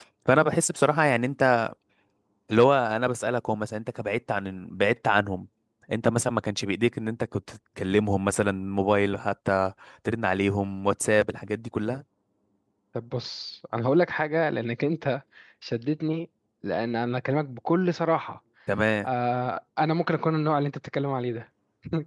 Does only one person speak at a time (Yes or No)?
Yes